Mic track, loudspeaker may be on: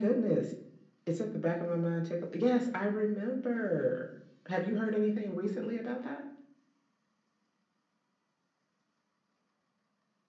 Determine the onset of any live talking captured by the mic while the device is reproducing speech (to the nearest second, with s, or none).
none